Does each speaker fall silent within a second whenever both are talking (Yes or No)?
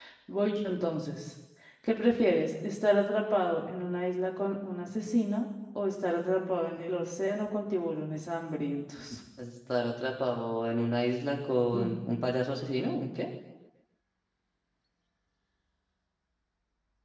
Yes